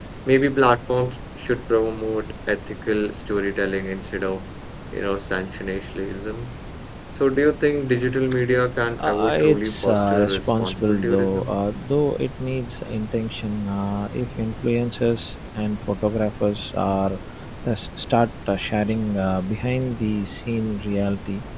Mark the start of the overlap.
9 s

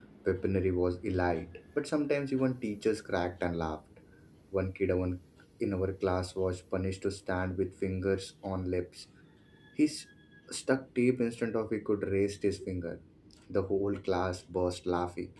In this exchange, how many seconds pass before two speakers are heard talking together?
none

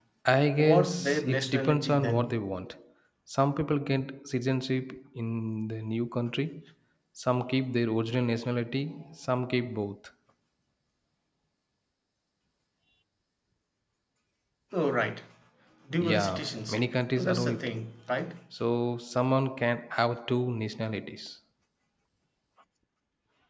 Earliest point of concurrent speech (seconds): 1 s

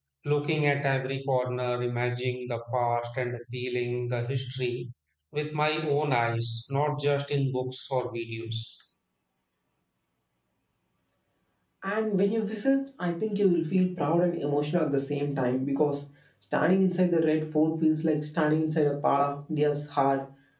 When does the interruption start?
none

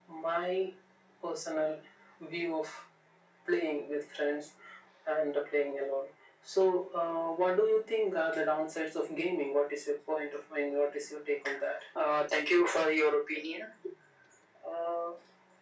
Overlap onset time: none

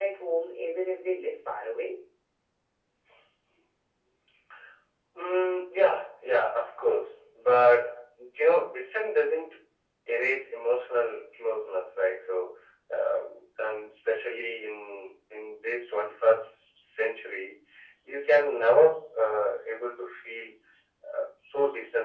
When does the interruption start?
none

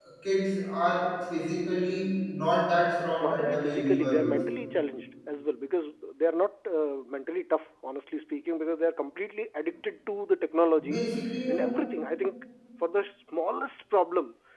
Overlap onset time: 3 s

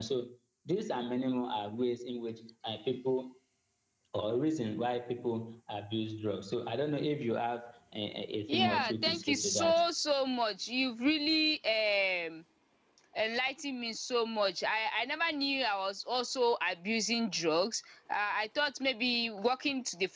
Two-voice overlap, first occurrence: 8 s

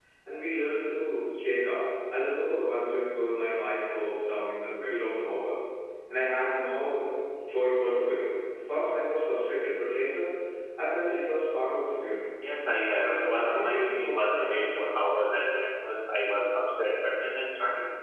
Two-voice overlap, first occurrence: 13 s

